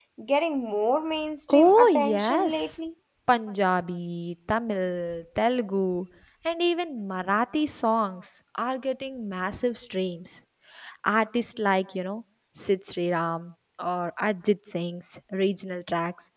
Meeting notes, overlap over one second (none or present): present